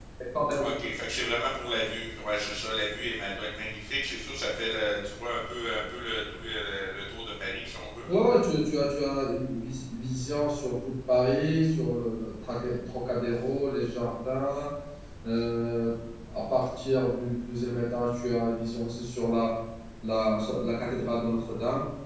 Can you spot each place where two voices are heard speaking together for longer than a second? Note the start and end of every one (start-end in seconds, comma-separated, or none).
none